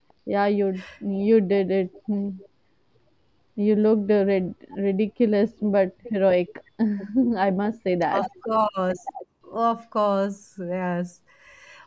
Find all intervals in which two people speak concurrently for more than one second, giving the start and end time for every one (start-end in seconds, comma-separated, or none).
none